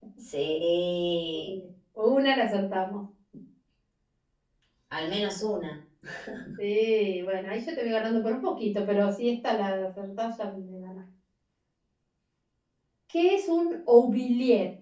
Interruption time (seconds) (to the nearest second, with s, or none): none